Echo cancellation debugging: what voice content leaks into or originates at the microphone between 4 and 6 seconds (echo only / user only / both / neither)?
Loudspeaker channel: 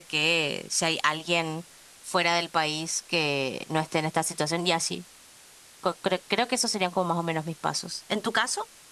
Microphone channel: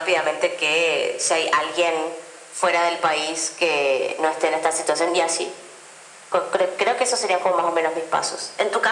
echo only